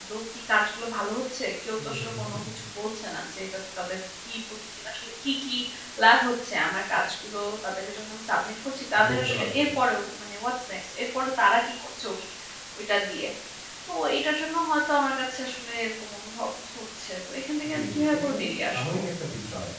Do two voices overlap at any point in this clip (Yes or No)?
Yes